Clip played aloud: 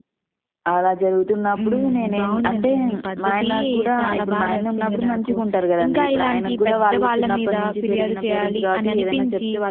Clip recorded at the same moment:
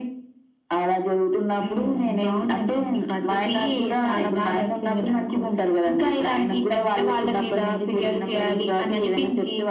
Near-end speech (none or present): none